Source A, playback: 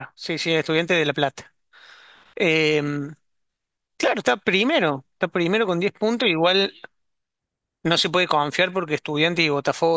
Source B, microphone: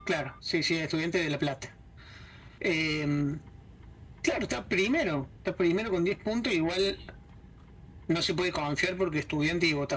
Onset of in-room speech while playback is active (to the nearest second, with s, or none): none